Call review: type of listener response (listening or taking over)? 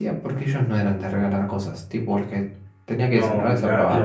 taking over